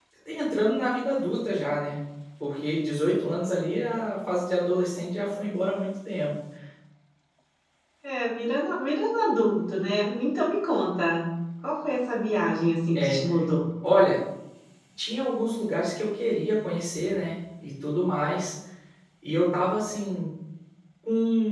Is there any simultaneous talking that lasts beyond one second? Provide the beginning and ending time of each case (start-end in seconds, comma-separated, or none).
none